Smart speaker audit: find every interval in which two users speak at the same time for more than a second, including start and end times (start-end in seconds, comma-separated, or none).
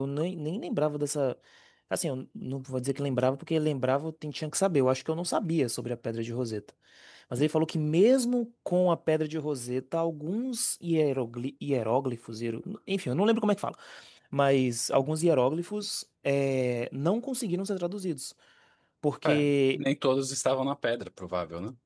none